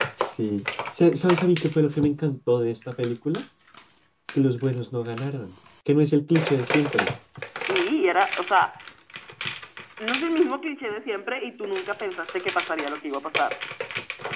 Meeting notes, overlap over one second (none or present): none